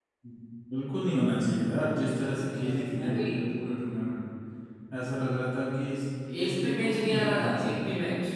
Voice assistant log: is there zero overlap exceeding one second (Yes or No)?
No